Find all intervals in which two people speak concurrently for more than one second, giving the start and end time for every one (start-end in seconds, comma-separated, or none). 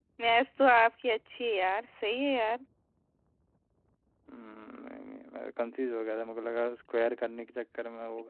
none